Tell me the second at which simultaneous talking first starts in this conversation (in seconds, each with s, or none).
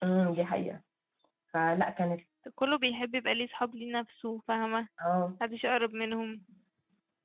none